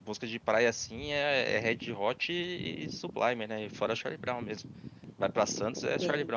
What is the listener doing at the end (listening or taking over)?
taking over